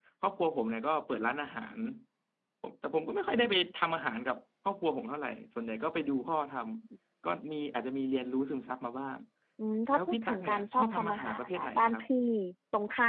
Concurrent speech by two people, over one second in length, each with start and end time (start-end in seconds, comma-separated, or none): 9.9-12.0